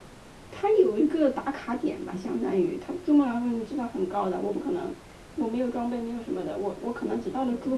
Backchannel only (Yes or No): Yes